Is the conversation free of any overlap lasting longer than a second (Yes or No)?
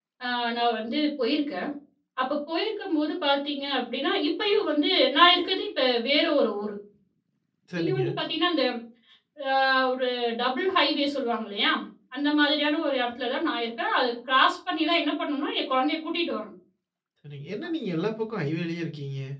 Yes